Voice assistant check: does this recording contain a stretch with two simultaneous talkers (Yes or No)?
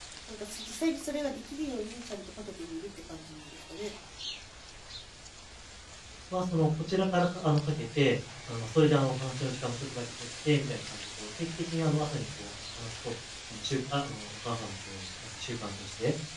No